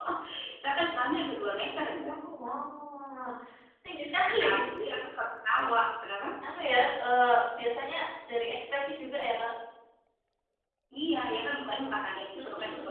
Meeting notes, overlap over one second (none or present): none